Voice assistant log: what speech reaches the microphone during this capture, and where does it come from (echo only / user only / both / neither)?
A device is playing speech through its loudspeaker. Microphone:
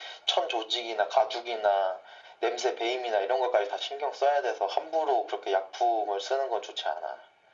echo only